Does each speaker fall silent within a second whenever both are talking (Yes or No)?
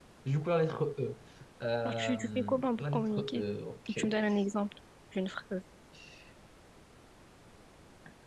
No